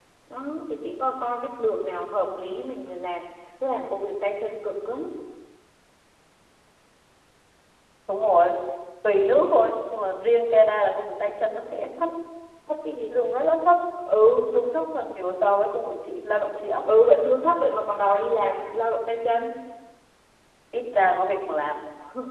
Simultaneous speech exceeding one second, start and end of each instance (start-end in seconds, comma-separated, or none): none